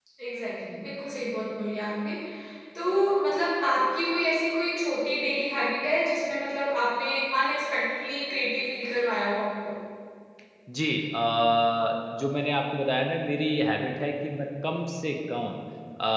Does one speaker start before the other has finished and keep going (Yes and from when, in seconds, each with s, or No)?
No